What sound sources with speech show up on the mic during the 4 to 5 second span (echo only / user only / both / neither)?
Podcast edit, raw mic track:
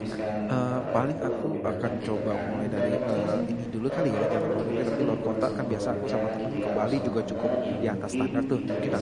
both